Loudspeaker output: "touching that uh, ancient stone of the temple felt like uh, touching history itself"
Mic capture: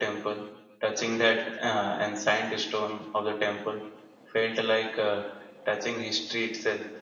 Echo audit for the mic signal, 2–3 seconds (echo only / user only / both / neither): echo only